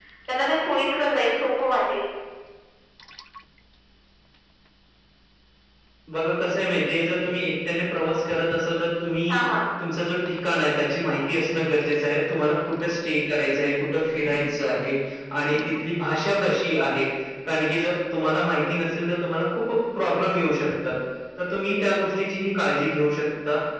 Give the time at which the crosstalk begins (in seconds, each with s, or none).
none